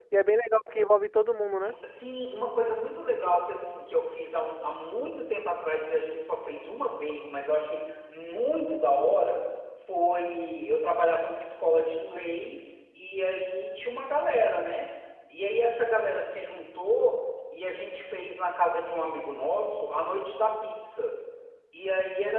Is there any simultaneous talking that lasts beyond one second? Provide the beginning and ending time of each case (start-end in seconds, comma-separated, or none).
none